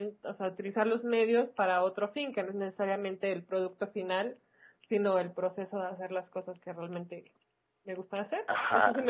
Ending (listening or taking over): taking over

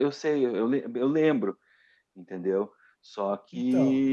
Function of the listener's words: listening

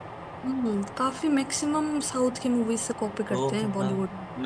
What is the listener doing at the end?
taking over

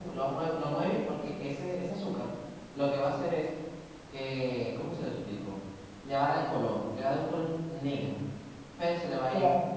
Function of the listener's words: listening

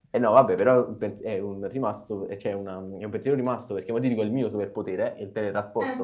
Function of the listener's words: listening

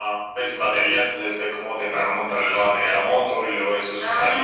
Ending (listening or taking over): taking over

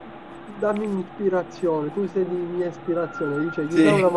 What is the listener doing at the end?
listening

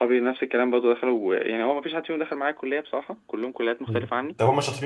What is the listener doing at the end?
taking over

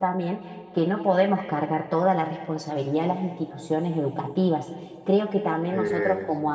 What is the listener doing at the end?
listening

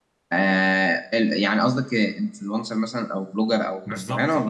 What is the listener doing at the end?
taking over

